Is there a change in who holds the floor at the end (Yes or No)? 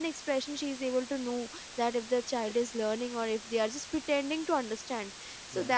No